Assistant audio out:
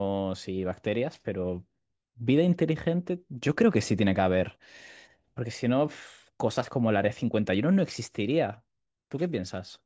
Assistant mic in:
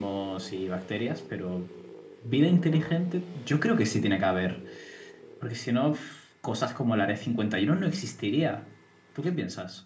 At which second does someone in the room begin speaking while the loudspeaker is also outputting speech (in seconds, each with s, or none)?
none